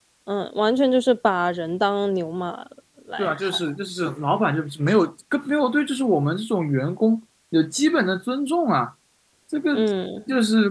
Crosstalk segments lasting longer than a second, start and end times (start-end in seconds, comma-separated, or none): none